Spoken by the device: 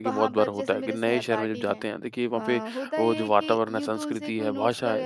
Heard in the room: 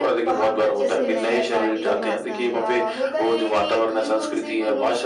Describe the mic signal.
both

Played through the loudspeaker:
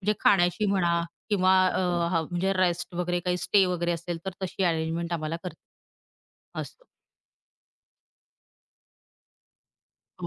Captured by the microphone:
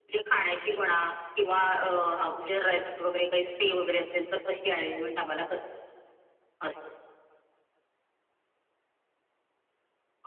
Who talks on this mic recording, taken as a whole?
both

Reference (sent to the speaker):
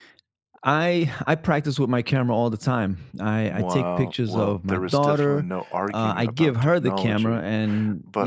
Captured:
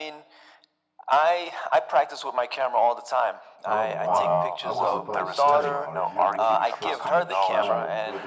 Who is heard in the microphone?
both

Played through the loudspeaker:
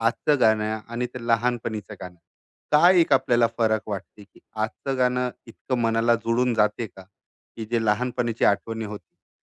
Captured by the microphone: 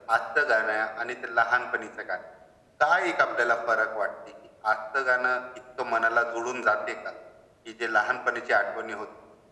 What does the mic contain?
echo only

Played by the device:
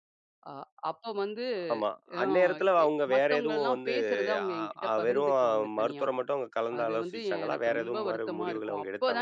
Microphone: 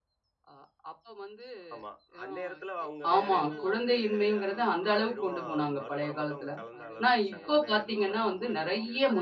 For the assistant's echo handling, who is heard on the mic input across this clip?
both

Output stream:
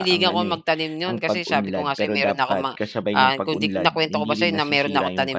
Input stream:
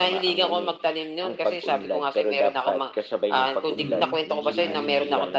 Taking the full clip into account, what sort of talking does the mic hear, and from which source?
both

